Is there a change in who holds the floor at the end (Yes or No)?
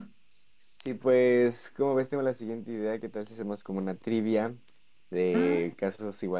No